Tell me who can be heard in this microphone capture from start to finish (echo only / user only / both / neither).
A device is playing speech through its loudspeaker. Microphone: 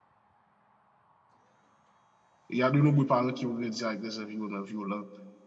user only